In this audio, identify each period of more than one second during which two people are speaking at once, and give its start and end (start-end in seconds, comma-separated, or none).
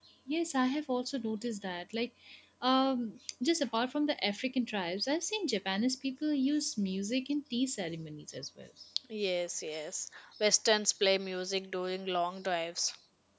none